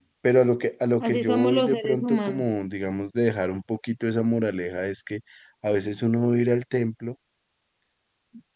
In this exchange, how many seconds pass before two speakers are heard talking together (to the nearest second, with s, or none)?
1 s